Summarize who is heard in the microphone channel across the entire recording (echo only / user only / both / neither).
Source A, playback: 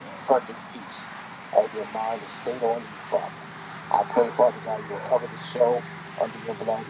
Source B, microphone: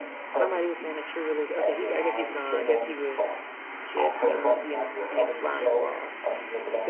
both